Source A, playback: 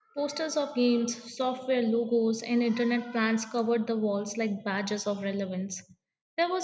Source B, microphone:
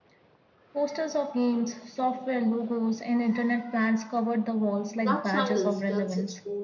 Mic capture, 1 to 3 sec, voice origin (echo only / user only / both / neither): echo only